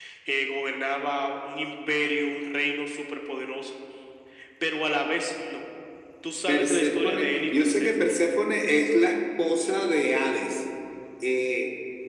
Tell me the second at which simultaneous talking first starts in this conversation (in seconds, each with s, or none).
6.5 s